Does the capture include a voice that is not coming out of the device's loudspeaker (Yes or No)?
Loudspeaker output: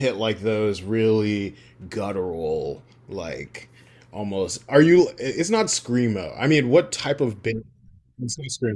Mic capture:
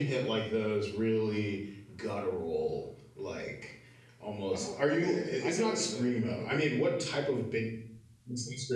Yes